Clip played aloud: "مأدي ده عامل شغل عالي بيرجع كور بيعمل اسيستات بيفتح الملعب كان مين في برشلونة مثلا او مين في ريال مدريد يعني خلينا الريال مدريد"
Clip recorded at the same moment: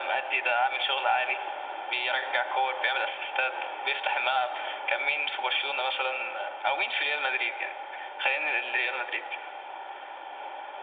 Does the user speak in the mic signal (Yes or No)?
No